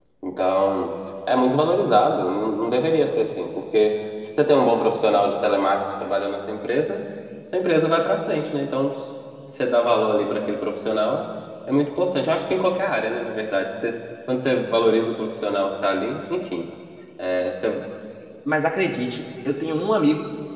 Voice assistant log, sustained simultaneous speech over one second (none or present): none